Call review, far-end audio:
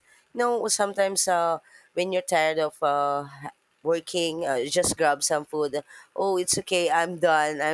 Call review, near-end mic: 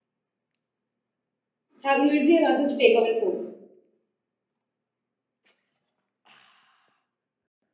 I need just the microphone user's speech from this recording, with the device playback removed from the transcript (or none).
have you easily have access to takeaway food